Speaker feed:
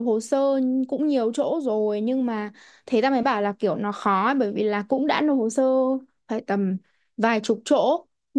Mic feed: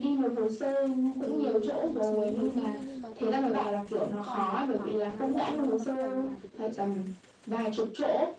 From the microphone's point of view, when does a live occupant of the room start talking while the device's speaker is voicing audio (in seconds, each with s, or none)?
1.2 s